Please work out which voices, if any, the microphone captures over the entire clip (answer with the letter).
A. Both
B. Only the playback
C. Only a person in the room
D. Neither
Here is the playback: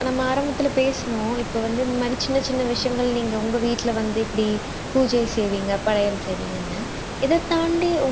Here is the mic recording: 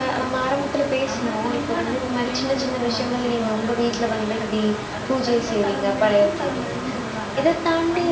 A